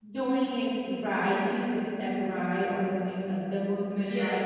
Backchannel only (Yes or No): Yes